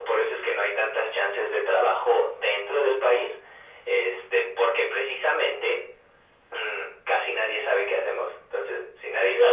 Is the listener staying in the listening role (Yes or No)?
No